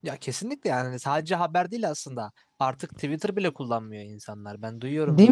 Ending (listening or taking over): listening